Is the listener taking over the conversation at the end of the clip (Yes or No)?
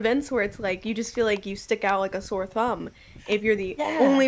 No